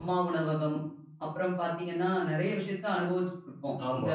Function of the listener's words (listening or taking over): taking over